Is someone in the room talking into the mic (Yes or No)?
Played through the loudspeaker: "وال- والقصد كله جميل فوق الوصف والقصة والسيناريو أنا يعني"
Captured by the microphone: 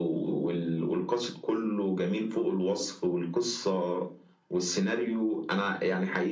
No